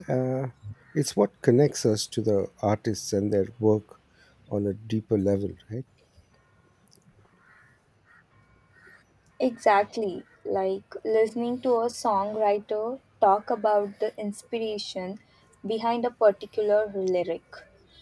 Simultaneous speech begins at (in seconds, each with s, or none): none